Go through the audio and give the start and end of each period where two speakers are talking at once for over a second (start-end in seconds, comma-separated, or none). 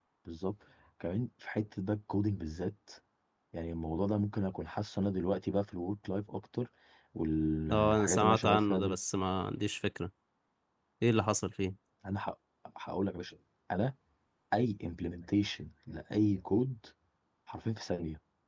7.7-9.0